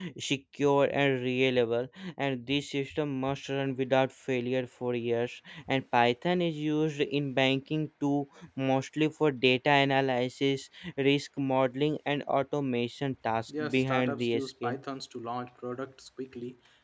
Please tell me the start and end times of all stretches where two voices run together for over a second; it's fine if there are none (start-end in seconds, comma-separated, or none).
13.5-14.8